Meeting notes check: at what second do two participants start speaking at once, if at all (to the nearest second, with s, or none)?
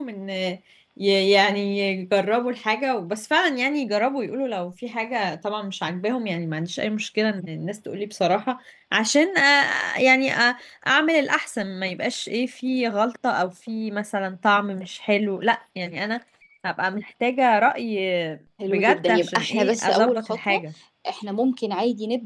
19 s